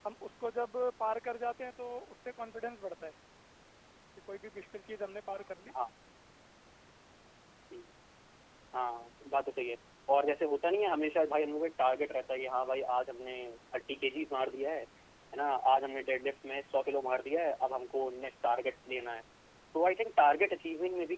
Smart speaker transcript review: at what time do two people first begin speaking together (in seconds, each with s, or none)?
none